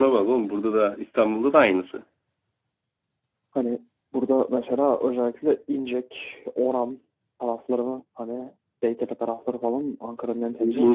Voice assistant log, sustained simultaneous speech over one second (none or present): none